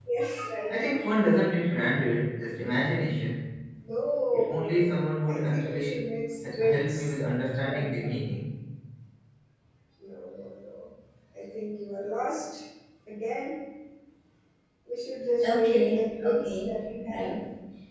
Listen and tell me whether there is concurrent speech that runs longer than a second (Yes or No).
Yes